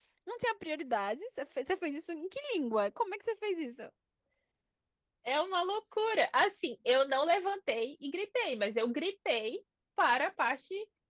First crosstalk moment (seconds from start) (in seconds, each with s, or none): none